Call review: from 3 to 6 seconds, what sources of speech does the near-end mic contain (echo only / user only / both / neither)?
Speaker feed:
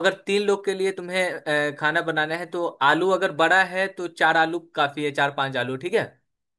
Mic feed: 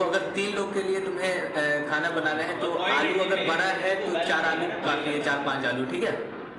both